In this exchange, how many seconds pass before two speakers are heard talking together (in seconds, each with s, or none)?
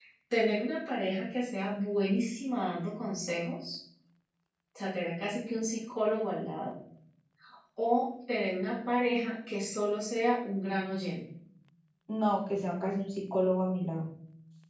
none